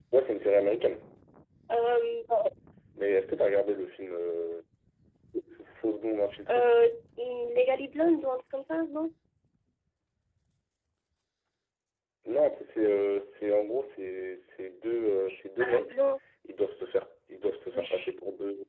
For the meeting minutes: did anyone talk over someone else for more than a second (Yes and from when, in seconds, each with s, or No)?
No